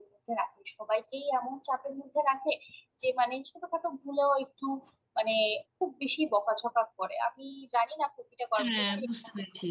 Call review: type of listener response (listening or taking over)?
taking over